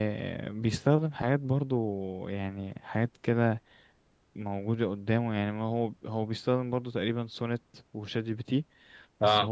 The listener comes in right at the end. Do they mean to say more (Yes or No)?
No